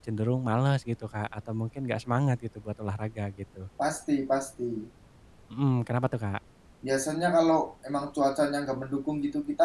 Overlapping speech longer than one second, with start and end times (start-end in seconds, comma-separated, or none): none